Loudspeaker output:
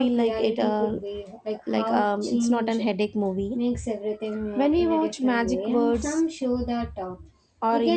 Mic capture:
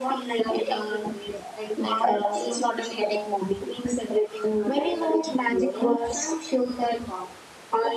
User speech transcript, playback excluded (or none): none